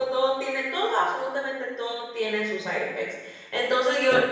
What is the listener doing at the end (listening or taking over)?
listening